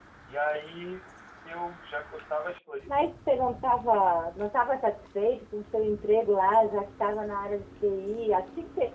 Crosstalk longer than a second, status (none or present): none